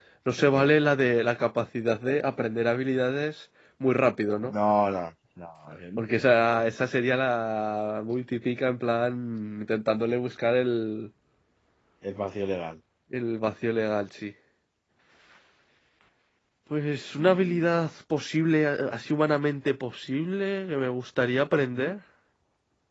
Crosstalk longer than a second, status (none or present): none